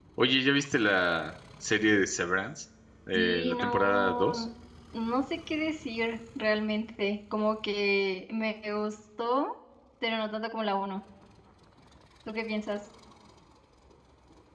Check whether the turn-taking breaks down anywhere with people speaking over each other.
Yes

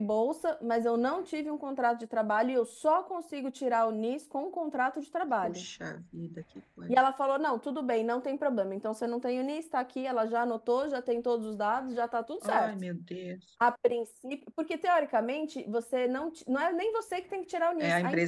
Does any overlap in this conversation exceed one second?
No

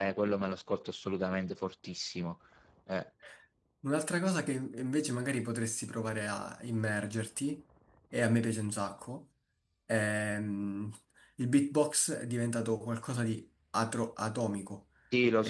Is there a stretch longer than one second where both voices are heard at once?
No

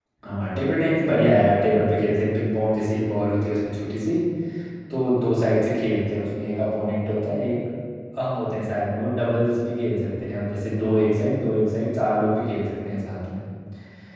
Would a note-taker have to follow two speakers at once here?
No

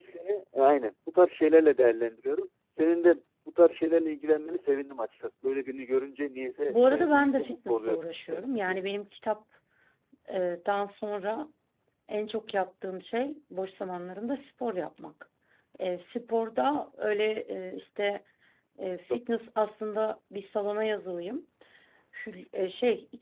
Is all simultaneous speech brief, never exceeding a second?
No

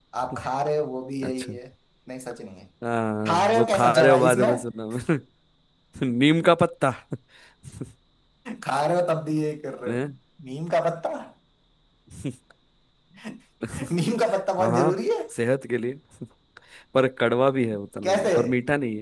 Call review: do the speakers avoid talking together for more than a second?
No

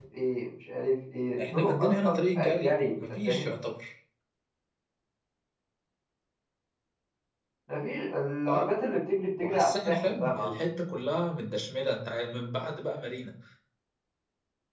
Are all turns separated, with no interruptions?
No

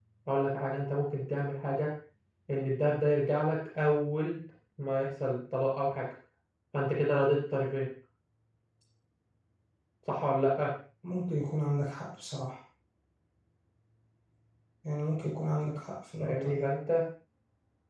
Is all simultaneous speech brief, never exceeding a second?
Yes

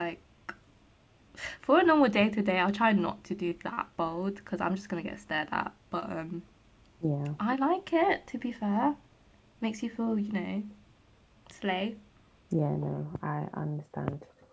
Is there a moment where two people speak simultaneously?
No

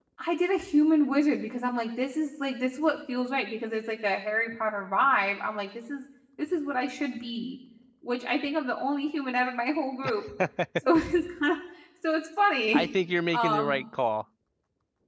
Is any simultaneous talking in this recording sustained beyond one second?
No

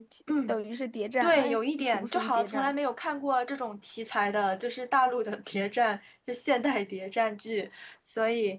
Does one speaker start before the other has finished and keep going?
Yes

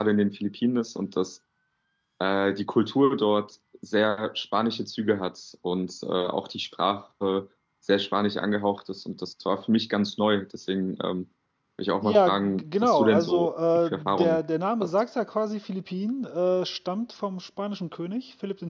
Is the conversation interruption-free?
No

